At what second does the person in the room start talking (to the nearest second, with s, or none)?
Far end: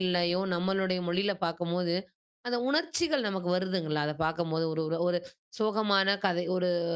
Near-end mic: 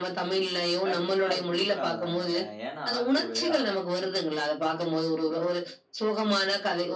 1 s